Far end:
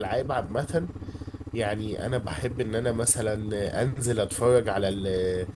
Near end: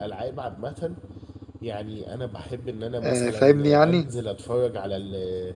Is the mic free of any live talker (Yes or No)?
No